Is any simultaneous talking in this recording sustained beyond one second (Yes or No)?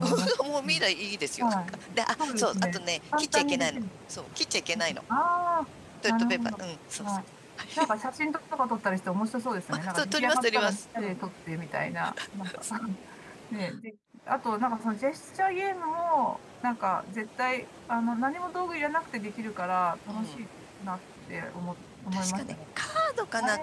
Yes